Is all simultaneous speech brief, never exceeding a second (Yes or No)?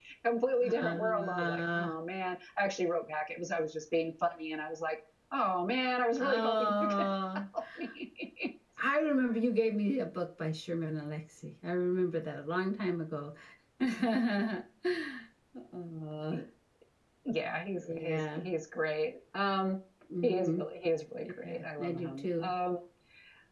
No